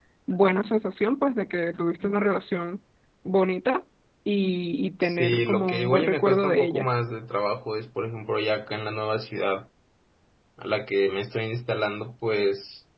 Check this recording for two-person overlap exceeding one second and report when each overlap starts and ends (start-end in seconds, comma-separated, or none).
5.0-6.9